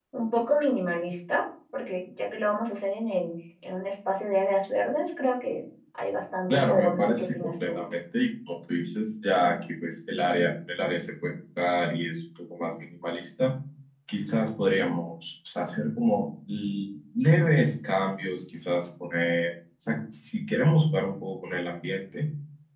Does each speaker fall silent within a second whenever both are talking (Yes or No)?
No